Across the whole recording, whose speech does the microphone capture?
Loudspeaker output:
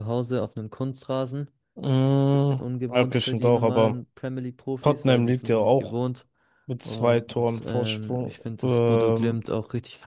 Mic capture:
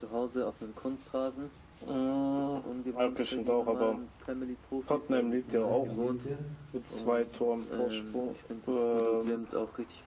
both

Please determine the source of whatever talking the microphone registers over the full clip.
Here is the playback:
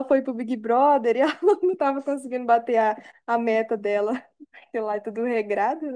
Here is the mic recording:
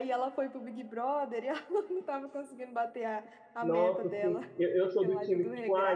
both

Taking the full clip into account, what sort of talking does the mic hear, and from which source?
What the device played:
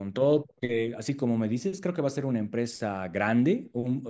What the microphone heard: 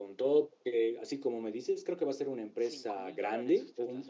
both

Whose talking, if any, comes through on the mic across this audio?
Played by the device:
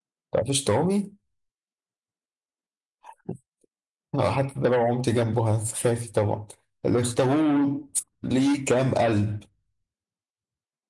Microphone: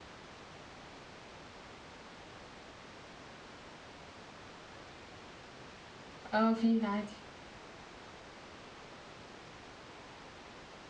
user only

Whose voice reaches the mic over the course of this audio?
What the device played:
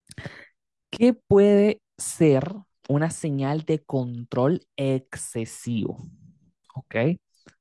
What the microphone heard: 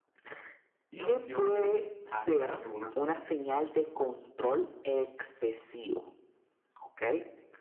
both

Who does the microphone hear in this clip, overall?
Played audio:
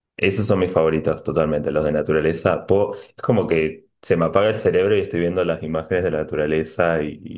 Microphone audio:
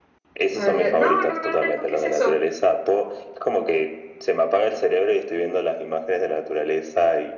both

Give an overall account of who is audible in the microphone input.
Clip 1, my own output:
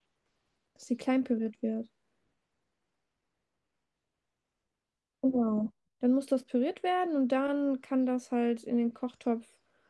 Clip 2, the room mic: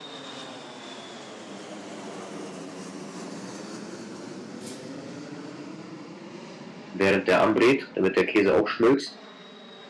user only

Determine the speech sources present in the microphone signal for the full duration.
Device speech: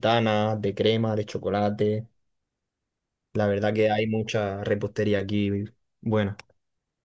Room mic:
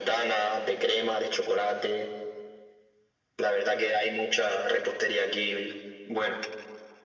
echo only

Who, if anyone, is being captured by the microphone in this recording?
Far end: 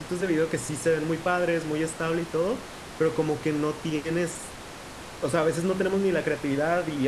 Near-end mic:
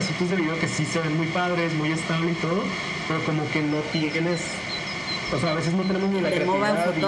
both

